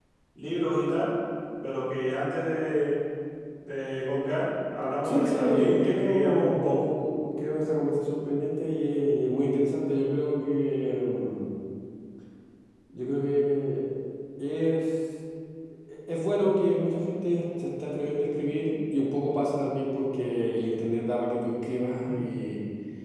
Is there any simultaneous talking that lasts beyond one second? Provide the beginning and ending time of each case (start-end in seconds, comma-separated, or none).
5.0-6.8